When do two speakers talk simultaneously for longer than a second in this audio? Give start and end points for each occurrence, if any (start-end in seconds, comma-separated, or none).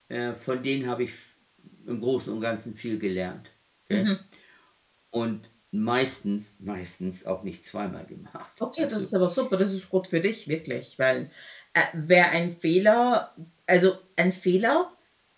none